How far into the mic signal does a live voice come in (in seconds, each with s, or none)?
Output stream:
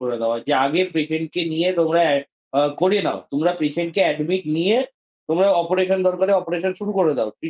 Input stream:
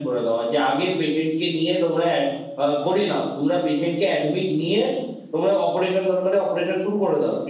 none